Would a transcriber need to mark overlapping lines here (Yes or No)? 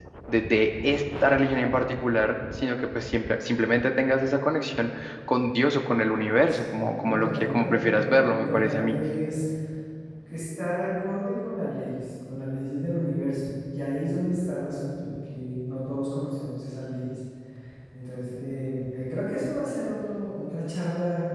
Yes